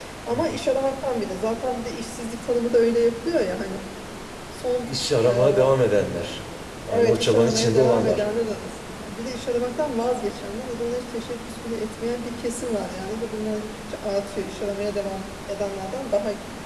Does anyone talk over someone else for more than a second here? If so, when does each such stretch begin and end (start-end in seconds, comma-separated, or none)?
6.9-8.2